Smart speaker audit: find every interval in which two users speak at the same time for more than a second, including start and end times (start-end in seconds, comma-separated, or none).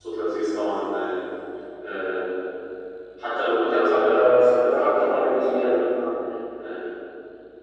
3.5-5.8